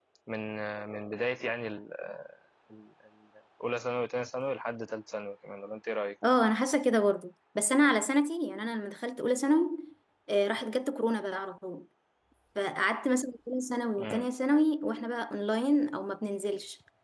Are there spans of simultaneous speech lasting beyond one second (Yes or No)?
No